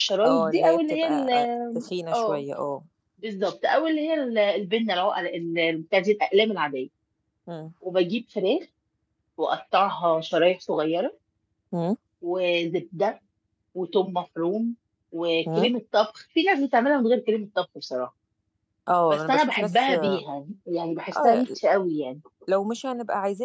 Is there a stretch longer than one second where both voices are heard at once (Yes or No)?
Yes